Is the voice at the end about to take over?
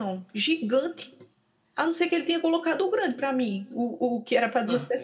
No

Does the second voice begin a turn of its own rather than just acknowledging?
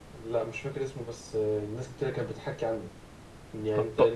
No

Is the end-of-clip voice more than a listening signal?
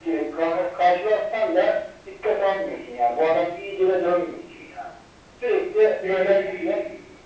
No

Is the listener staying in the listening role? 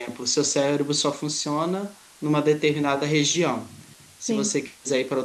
Yes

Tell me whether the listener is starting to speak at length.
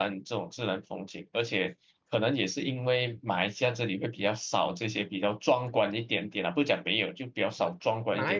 Yes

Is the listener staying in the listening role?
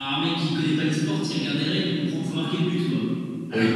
Yes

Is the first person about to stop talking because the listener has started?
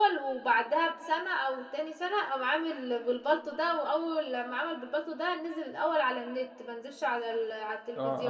Yes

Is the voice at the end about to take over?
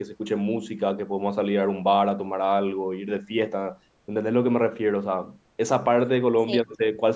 No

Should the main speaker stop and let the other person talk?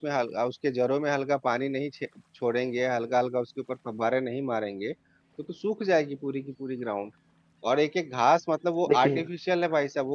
No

